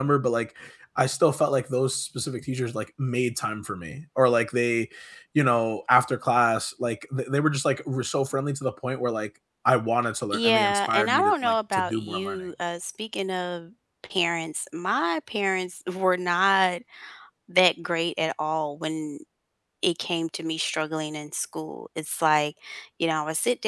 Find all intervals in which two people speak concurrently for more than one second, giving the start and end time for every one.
10.3-12.4

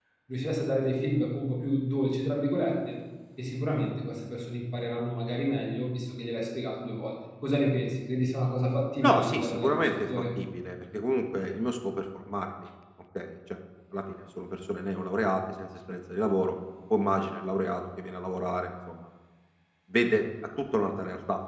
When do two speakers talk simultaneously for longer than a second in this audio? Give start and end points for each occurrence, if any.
9.0-10.2

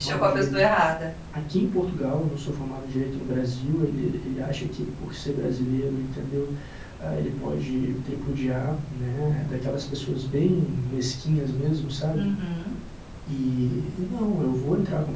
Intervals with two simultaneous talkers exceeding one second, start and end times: none

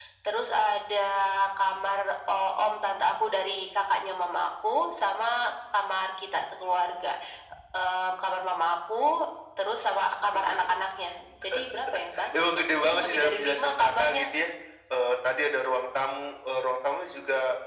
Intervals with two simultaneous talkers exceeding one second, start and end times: 12.3-14.3

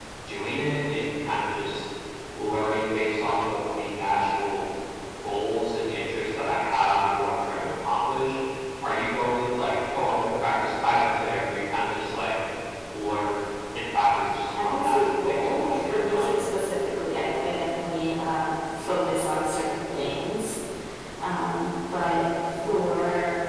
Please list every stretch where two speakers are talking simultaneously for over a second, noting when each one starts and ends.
14.6-16.4

